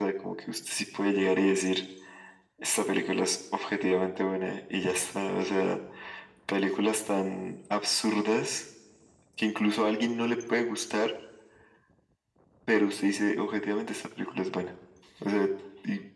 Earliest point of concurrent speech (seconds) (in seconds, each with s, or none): none